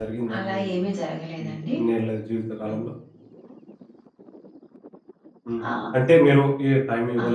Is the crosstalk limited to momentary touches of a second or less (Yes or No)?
Yes